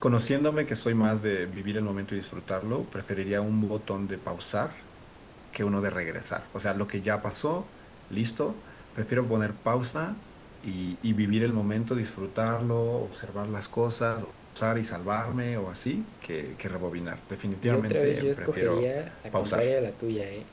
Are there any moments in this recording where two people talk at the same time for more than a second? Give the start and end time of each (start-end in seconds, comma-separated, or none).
17.6-18.9